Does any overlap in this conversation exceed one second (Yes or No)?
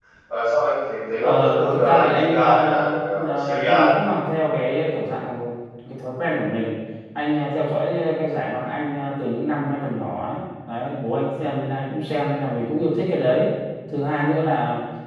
Yes